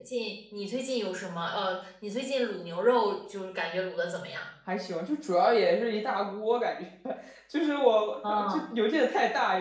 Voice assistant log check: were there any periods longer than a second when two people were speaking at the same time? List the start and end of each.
none

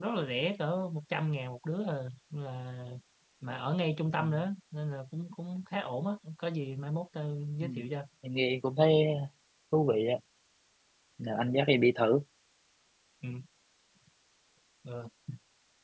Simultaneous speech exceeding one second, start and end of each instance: none

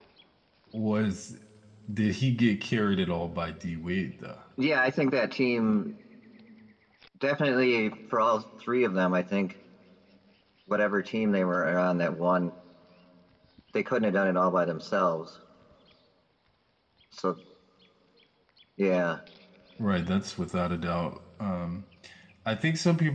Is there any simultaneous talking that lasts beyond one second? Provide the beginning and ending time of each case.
none

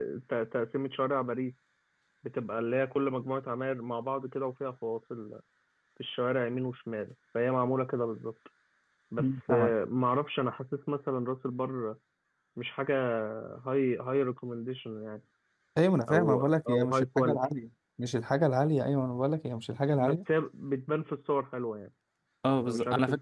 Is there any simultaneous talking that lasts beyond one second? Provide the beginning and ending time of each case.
16.1-17.4

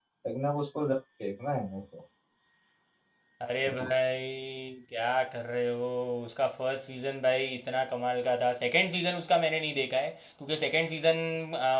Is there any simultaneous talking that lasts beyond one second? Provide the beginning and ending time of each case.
none

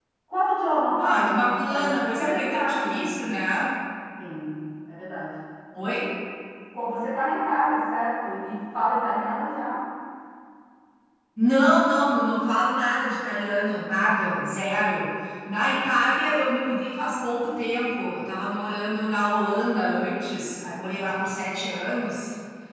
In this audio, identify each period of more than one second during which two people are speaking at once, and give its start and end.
1.0-3.2

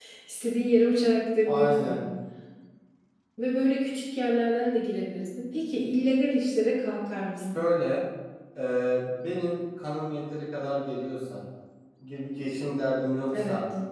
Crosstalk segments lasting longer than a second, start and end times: none

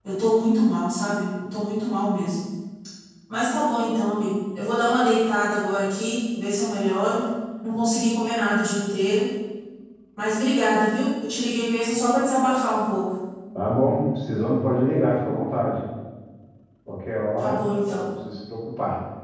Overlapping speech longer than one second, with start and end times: none

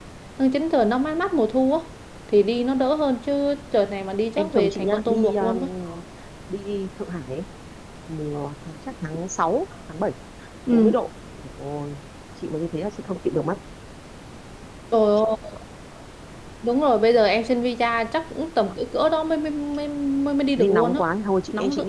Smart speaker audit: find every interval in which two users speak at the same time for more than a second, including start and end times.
4.4-5.6

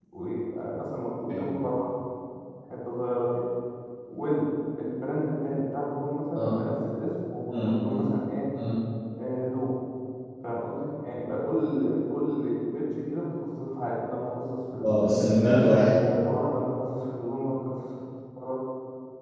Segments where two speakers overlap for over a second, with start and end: none

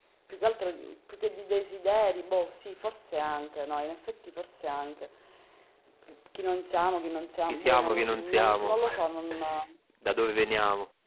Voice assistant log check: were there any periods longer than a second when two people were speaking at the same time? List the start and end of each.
7.5-8.8

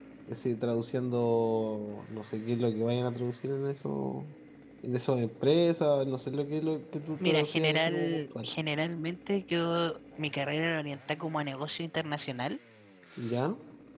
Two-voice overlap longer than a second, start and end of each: 7.2-8.5

